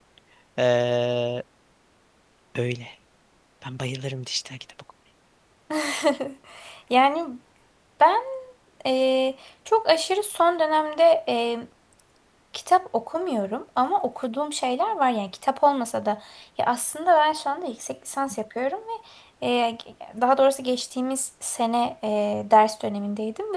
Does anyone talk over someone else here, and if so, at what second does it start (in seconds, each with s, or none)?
none